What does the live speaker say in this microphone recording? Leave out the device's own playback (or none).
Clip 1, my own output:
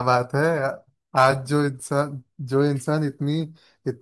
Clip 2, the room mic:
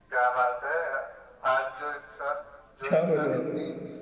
क्या बोलूँ अब